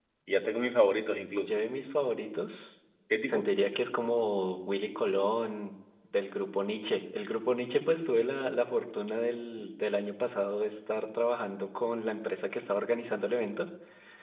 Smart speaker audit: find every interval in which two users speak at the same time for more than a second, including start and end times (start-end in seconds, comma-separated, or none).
none